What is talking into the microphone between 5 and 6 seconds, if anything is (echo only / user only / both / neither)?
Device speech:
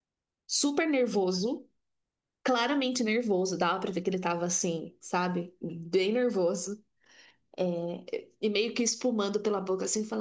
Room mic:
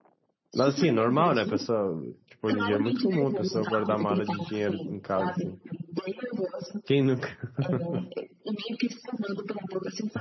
both